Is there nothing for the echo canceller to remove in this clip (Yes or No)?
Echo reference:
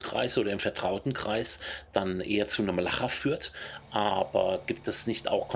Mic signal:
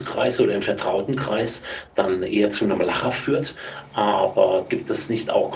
No